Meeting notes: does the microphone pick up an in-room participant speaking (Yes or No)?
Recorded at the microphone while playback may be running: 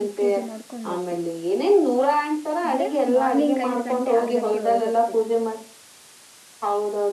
Yes